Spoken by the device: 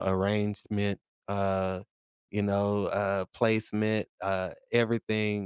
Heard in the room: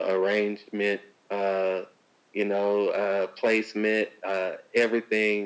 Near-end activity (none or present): none